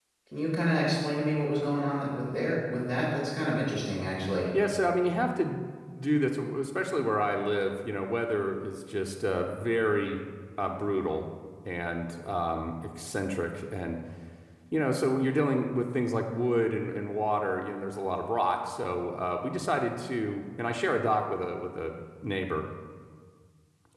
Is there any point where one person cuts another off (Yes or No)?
No